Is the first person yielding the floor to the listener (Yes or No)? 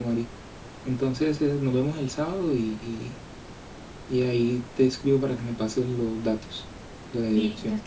Yes